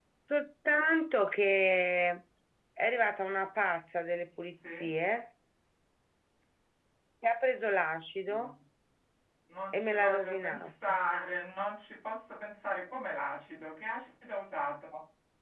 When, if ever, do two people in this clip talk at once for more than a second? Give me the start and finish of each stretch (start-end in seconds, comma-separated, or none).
9.7-10.9